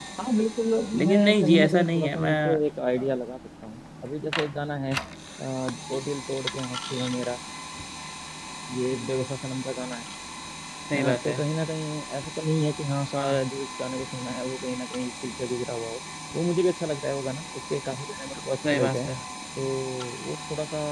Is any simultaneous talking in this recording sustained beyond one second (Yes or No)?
Yes